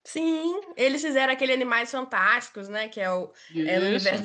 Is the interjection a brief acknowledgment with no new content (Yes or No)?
Yes